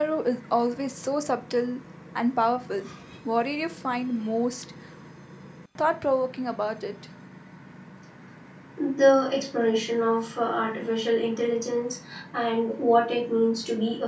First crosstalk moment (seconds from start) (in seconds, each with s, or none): none